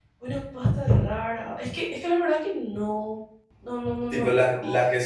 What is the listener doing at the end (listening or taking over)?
taking over